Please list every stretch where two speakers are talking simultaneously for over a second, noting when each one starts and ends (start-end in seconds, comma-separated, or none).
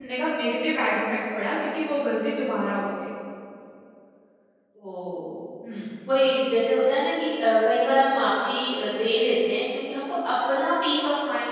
none